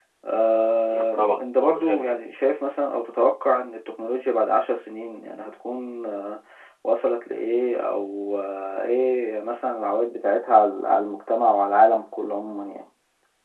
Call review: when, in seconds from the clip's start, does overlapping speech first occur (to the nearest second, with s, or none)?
1 s